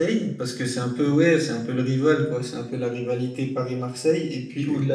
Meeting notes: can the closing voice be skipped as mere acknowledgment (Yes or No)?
Yes